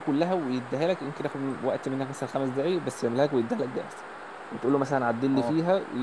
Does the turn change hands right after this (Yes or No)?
No